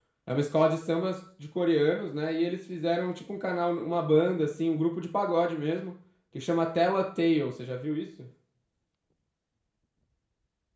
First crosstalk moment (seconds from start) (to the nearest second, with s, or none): none